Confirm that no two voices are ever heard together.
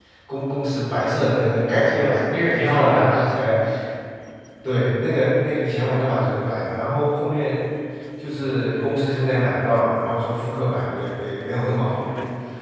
No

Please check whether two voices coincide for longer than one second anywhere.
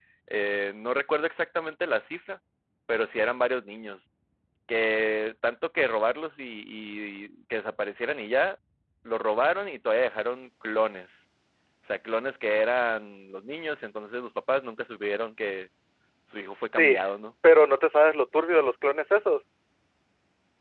No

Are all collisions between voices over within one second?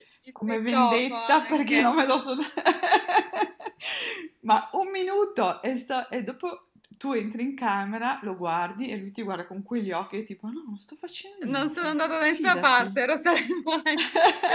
No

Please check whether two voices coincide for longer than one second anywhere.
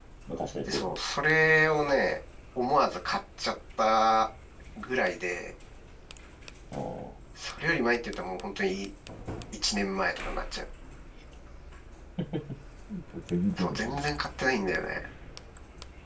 No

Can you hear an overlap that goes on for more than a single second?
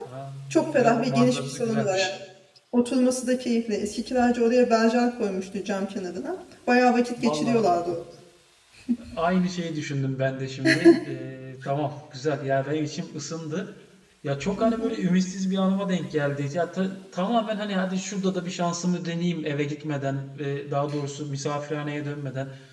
Yes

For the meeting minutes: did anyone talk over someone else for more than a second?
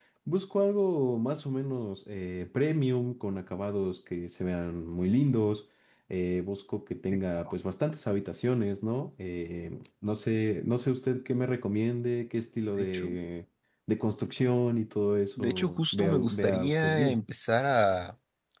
Yes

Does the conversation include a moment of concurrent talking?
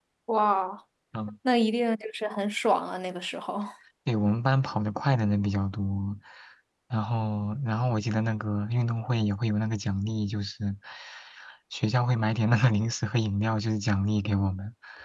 No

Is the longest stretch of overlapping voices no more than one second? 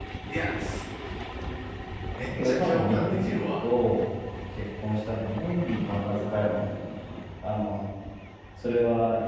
No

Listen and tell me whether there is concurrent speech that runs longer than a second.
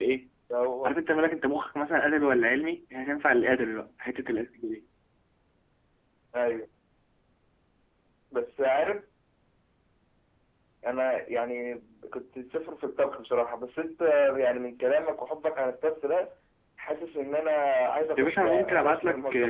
Yes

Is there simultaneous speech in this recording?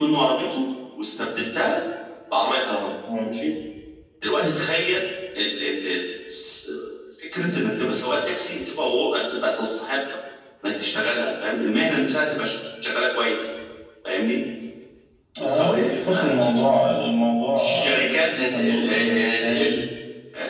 Yes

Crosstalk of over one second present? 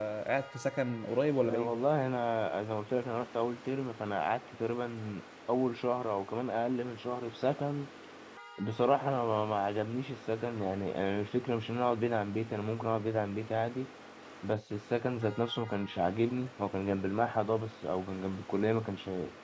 No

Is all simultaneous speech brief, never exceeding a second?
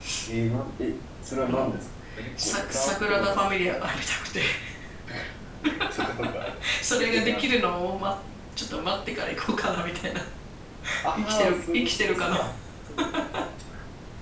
No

